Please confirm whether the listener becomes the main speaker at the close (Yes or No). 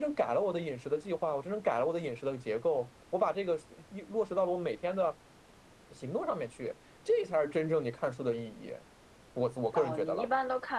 Yes